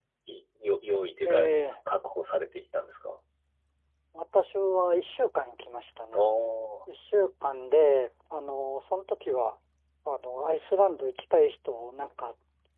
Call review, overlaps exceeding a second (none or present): none